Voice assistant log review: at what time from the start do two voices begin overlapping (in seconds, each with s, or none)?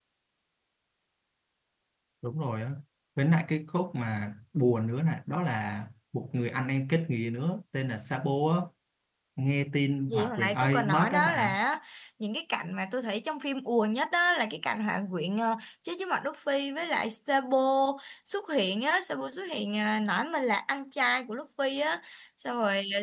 10.1 s